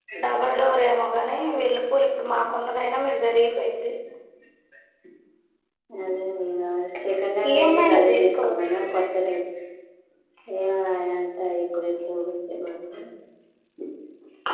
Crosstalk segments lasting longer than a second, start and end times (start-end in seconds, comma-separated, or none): 7.5-8.8